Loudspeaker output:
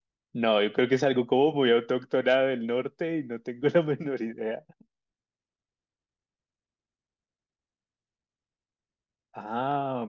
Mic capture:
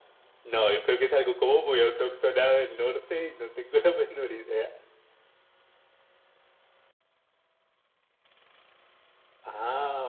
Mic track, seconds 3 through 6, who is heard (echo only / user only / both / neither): echo only